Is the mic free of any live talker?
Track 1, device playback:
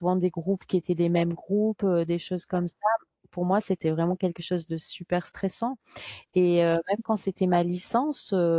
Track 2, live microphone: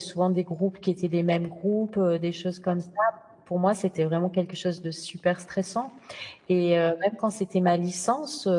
Yes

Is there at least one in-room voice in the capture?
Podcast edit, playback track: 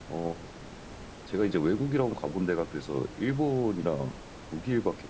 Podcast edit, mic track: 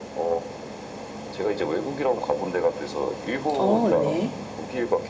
Yes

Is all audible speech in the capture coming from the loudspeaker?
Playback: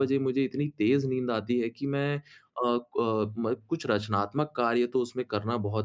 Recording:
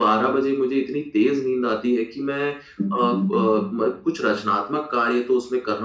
No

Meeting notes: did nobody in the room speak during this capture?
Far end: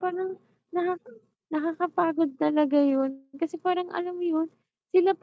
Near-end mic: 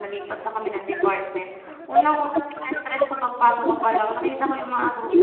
No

